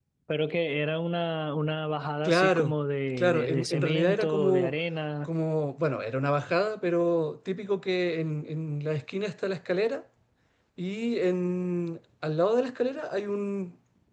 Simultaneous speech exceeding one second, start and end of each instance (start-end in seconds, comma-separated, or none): 3.2-4.7